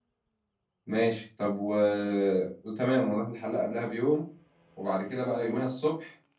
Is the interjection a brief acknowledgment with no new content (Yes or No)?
Yes